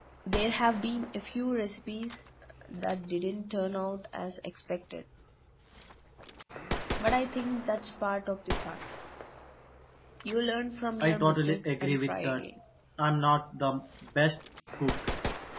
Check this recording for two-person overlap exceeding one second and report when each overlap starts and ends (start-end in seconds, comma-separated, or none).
11.0-12.4